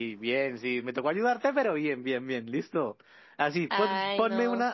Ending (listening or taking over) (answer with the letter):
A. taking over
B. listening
B